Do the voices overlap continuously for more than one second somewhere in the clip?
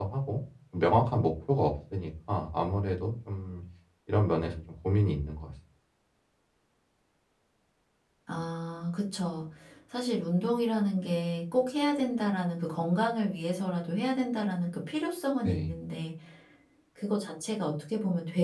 No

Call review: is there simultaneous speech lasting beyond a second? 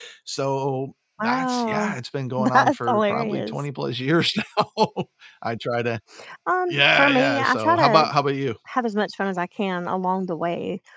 Yes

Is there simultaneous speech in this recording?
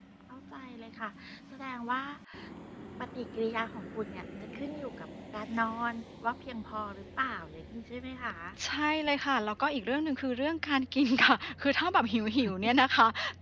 No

